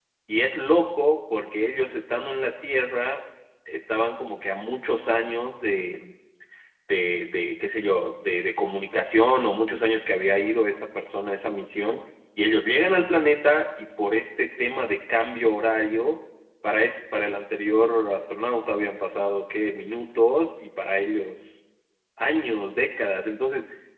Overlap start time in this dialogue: none

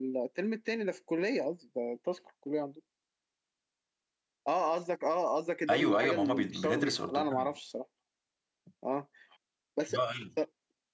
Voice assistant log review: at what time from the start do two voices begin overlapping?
6 s

